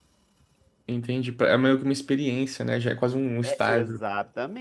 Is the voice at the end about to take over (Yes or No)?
Yes